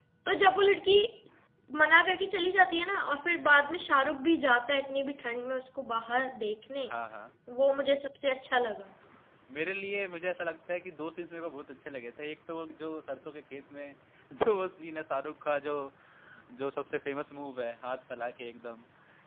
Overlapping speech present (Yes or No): No